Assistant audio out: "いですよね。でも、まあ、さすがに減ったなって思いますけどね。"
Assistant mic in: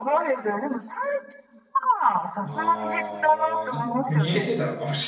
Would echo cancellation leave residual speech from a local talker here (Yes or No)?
Yes